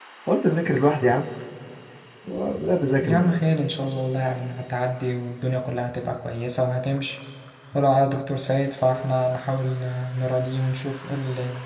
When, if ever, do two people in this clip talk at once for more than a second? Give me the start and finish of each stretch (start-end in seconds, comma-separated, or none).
none